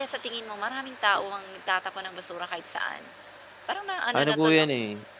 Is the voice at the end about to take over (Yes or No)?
Yes